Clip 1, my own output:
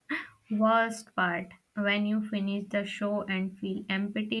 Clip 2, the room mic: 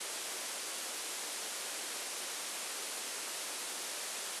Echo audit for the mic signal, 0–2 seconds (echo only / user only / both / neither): neither